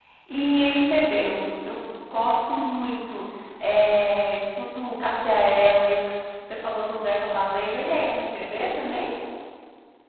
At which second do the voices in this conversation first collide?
none

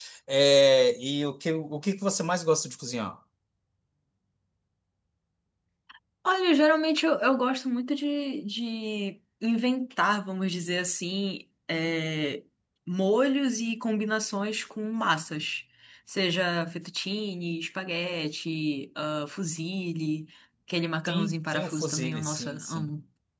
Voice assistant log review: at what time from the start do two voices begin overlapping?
21 s

